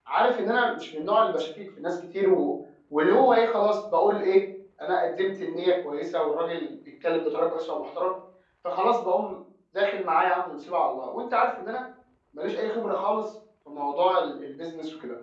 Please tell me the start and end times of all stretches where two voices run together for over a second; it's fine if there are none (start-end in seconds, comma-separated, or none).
none